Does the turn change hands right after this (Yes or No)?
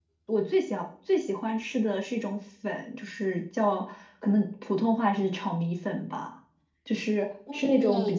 No